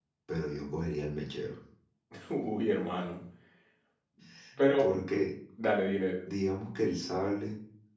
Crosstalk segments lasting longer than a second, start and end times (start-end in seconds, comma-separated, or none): none